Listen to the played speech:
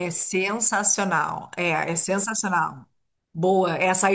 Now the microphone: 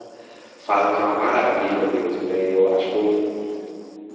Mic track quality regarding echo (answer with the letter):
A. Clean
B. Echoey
A